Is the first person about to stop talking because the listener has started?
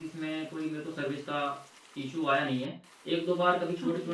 No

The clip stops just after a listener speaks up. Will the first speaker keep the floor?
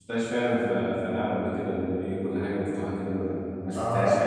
No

